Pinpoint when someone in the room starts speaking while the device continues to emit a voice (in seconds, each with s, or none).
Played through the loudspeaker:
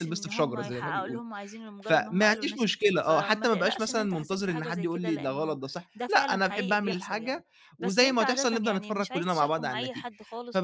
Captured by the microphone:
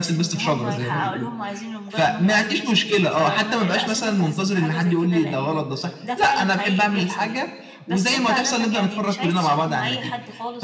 none